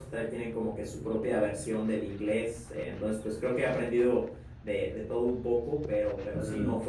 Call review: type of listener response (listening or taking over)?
listening